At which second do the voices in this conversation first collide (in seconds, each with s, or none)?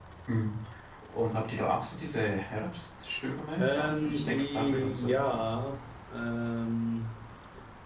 3.6 s